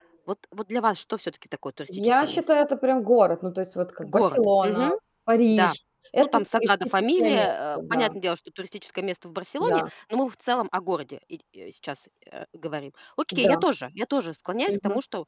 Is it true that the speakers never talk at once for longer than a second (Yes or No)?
No